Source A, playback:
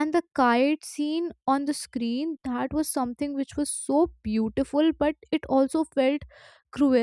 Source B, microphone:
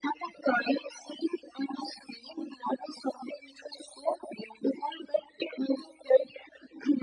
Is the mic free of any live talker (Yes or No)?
Yes